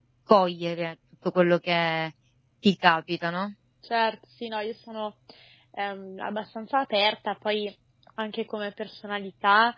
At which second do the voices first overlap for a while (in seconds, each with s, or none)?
none